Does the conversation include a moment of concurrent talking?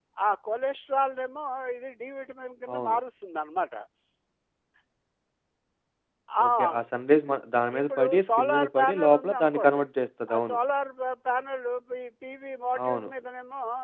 Yes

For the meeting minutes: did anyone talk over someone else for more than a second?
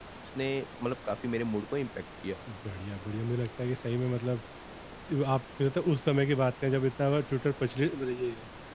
No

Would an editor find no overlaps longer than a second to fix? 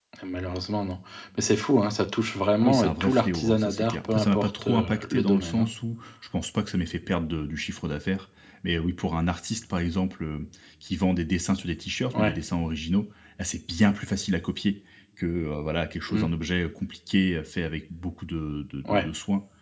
No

